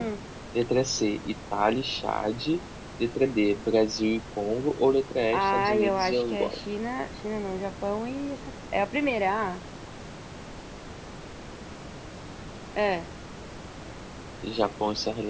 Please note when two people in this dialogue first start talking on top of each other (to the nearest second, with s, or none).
5 s